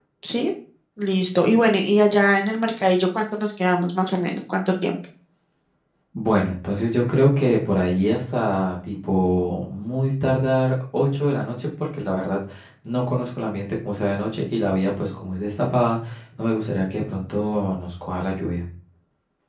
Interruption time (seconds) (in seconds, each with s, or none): none